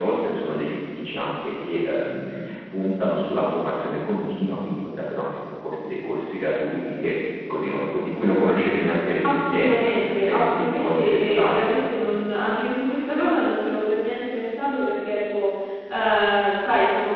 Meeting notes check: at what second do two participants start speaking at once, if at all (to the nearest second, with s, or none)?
9 s